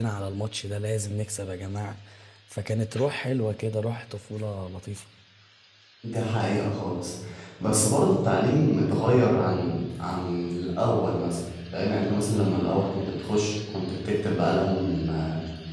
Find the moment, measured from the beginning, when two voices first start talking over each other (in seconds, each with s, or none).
none